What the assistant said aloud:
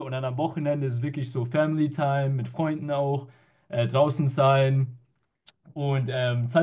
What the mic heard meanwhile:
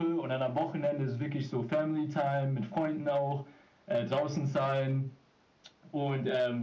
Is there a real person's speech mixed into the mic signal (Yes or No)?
No